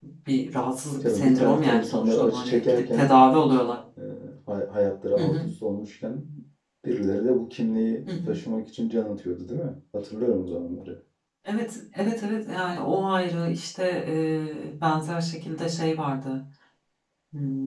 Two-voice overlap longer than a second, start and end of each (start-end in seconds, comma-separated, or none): 1.0-3.1